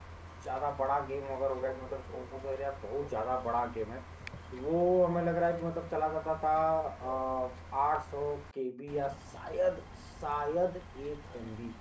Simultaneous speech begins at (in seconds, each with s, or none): none